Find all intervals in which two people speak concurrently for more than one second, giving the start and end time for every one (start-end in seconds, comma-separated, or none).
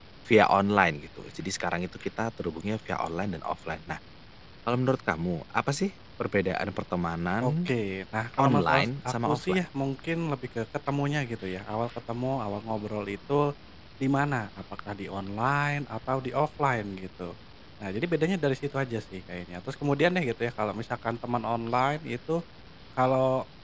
8.4-9.6